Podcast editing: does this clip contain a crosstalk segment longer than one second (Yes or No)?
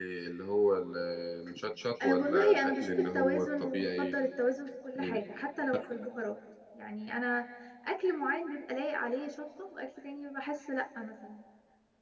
Yes